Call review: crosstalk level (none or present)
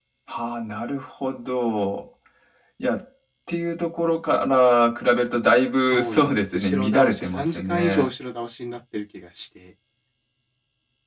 present